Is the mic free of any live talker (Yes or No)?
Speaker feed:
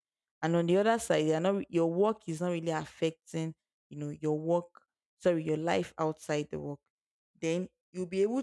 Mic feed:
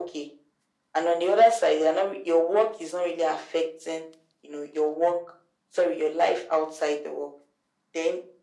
Yes